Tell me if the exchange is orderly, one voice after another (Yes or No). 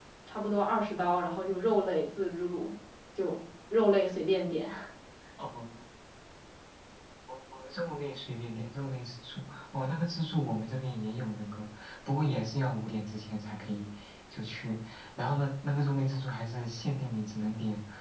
Yes